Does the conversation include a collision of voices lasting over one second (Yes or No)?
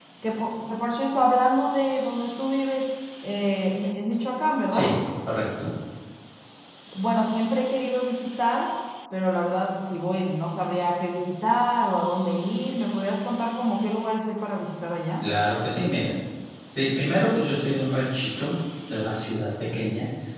No